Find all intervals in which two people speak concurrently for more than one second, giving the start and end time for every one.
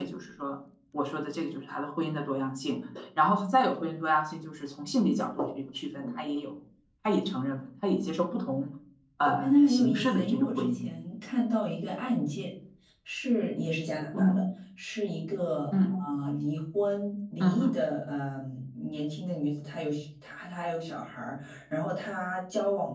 9.4-10.9

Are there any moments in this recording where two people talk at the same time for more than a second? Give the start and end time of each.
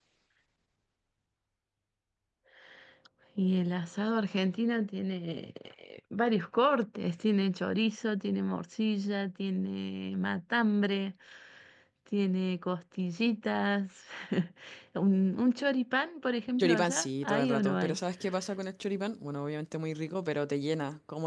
16.6-18.0

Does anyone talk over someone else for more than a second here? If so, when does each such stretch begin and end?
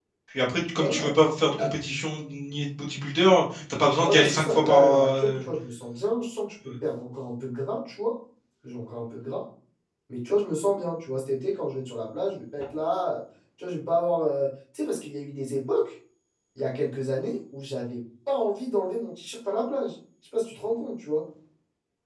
4.0-5.4

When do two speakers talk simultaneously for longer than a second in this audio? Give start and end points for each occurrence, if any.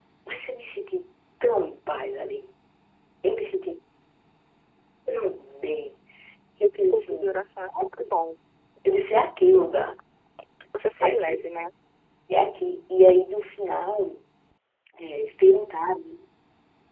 none

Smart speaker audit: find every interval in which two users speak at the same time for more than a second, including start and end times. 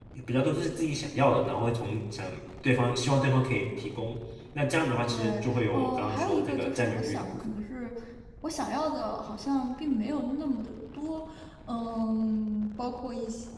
5.1-7.5

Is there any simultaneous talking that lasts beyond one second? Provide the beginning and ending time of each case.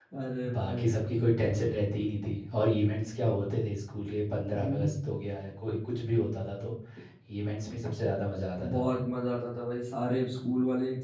none

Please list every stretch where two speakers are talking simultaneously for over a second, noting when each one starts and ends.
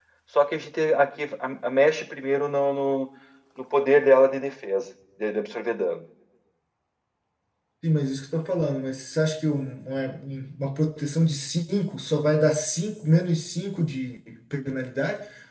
none

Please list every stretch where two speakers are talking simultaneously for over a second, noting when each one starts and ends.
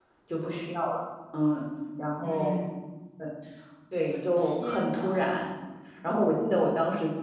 4.0-5.3

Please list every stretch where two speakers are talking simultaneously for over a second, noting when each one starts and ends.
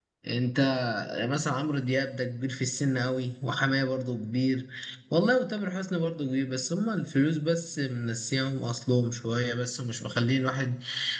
none

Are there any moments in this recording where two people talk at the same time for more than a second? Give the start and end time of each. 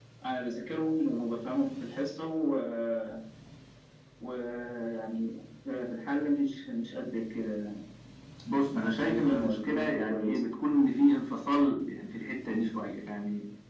8.7-10.4

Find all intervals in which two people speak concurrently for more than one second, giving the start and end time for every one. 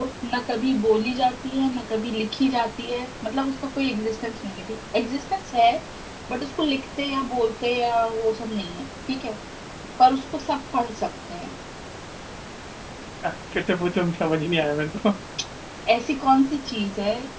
none

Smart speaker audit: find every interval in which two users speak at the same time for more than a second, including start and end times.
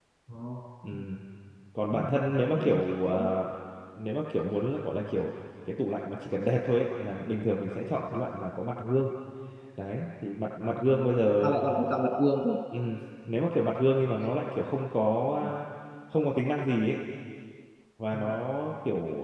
1.9-3.3

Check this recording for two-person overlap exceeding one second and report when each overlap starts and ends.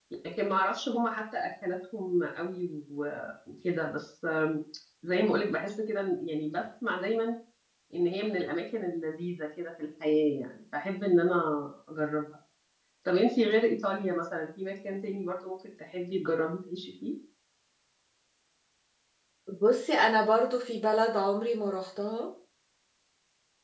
none

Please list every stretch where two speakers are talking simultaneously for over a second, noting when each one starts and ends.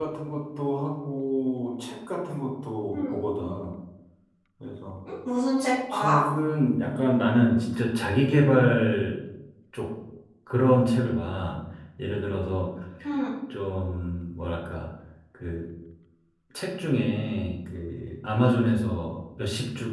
none

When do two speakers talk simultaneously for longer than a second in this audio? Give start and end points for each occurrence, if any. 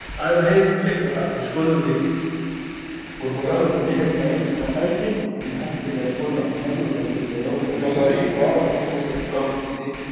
3.2-4.5

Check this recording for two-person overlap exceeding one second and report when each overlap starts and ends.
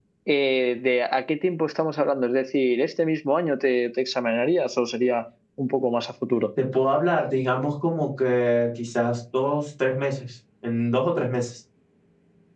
none

